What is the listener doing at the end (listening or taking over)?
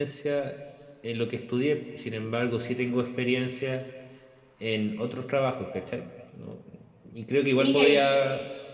listening